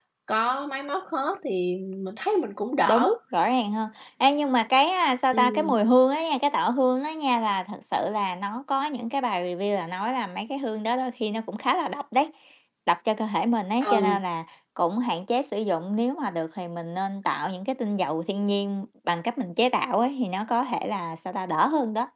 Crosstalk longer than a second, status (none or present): none